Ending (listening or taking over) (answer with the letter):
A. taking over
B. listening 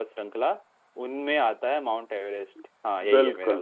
A